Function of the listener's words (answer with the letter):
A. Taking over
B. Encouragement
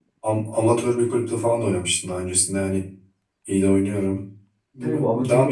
A